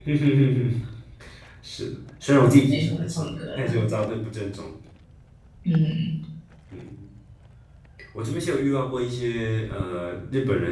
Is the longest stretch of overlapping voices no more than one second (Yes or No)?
No